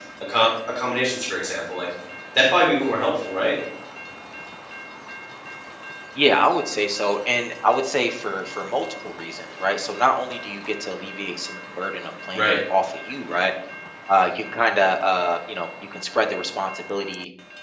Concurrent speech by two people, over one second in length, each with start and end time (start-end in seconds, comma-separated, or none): none